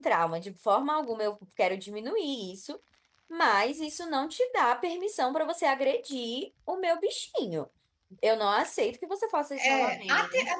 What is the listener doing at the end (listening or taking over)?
taking over